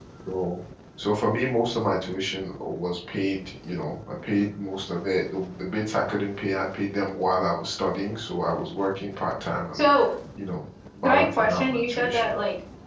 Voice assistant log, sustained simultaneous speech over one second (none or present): present